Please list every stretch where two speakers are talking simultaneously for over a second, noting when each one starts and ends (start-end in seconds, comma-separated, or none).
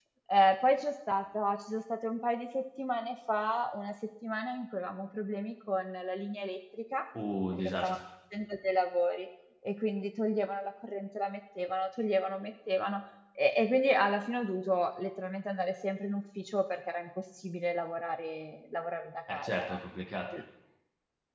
none